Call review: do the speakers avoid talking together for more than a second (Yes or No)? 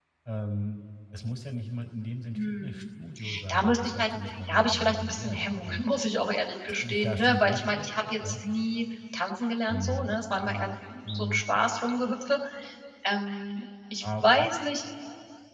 No